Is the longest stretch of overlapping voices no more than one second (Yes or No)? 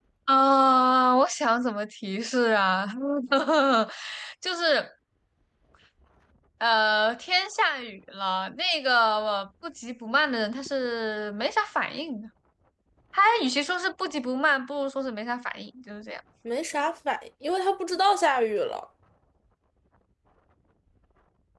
Yes